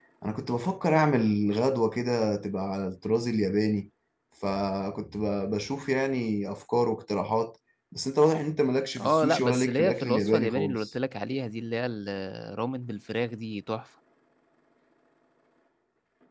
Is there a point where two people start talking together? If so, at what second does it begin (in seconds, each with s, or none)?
9.0 s